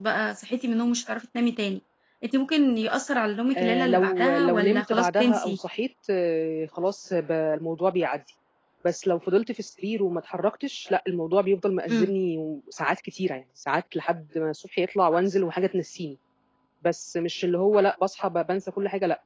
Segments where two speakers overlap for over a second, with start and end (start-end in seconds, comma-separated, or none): 3.6-5.6